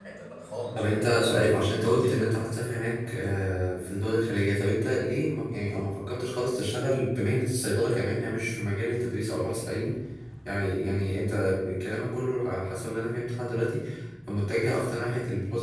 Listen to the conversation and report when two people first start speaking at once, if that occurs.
0.8 s

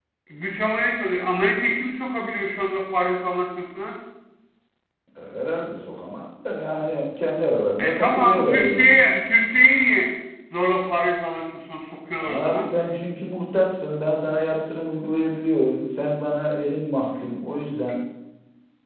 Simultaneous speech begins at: 7.8 s

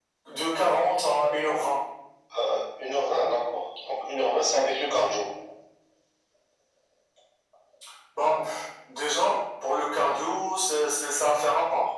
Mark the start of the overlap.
none

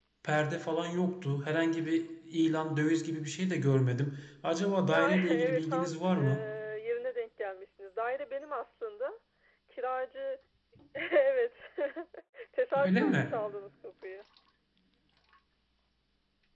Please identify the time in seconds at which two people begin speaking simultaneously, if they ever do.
4.9 s

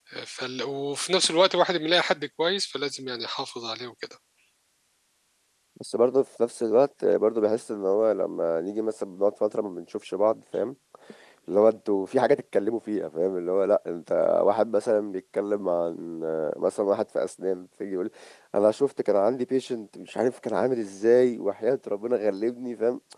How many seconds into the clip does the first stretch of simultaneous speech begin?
none

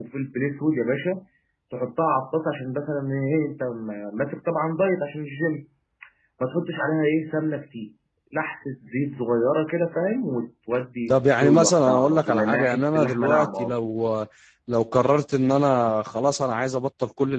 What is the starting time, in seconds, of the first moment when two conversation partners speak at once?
11.1 s

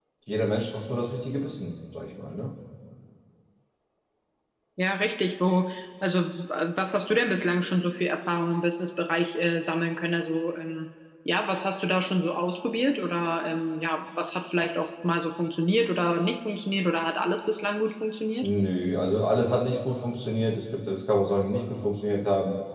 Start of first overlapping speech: none

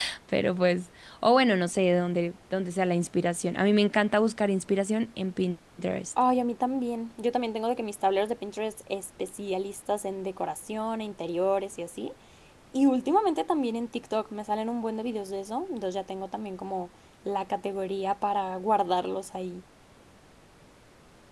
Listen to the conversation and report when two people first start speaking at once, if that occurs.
none

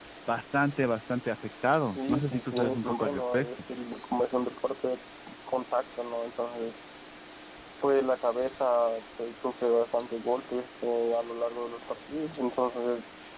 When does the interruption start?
1.9 s

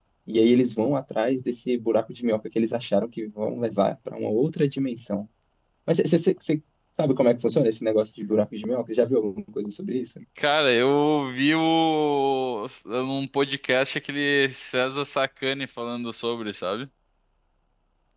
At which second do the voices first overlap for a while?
none

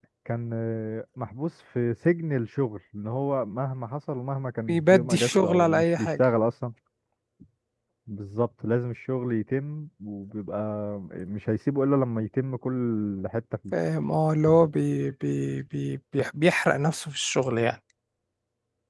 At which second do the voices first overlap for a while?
4.7 s

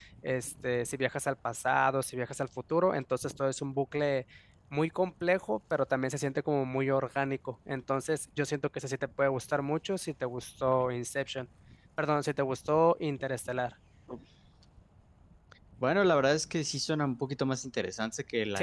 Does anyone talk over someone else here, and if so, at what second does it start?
none

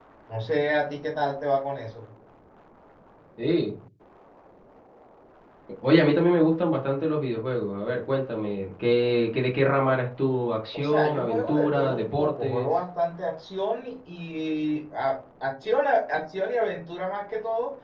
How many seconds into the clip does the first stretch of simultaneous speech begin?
10.7 s

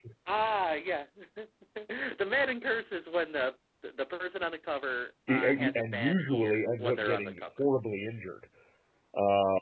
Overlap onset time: 5.3 s

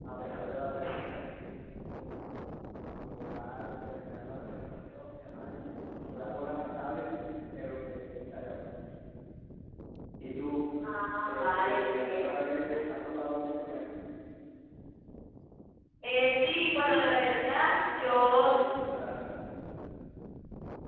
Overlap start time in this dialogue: 11.2 s

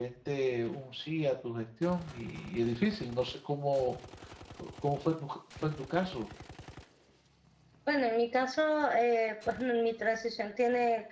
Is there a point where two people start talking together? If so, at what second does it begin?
none

